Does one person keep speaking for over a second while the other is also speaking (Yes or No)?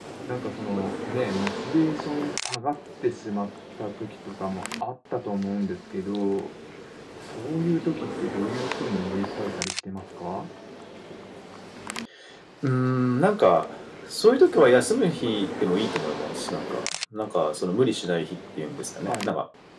No